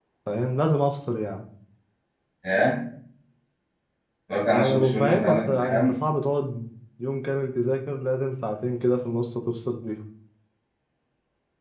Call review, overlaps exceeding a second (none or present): present